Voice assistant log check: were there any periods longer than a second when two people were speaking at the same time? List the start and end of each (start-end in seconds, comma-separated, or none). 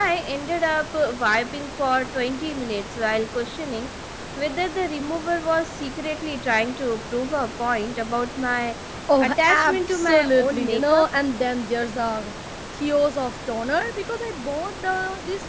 9.2-11.1